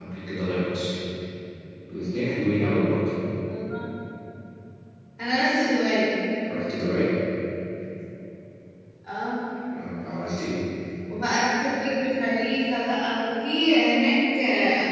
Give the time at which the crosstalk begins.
none

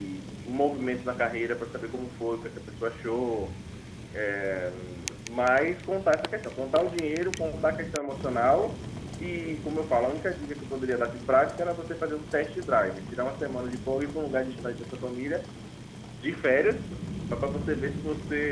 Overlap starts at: none

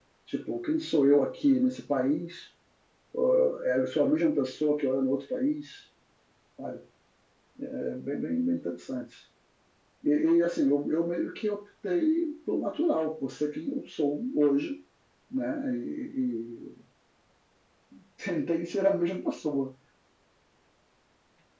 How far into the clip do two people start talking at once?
none

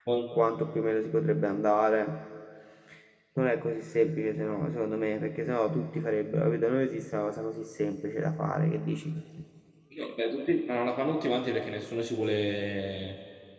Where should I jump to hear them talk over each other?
none

